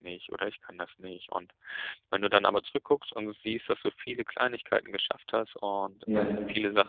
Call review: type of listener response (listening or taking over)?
listening